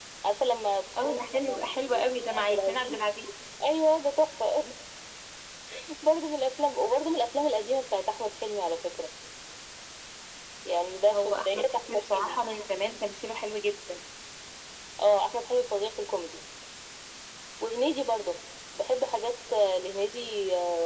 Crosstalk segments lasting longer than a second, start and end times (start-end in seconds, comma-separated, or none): 1.0-3.0, 11.1-12.4